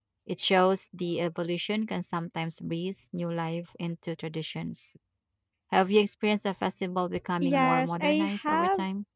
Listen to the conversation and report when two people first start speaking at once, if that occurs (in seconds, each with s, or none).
7.4 s